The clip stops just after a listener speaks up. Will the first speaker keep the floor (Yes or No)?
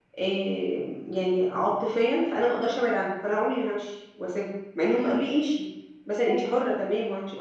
Yes